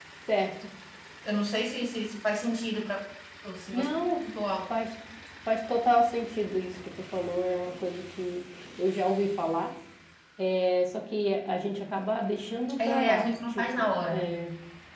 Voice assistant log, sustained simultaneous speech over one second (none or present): present